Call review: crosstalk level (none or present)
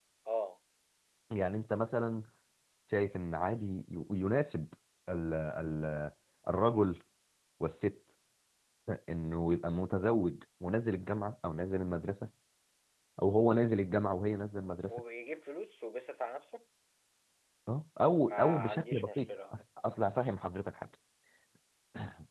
present